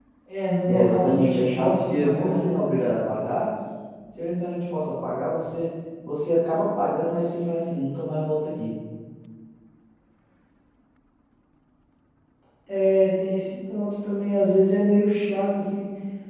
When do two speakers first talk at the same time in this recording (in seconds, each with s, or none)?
0.7 s